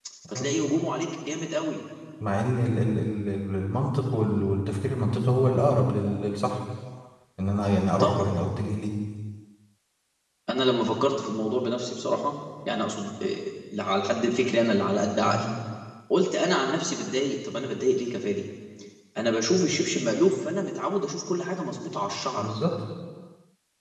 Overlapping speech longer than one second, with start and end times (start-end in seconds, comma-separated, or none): none